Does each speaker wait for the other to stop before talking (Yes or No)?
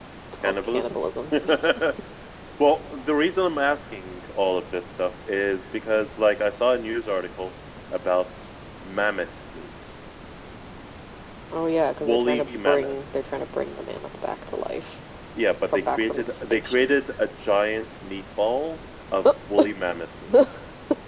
No